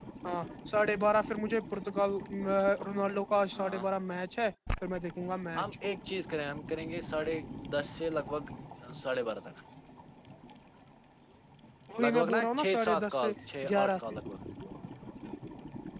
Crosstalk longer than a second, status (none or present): present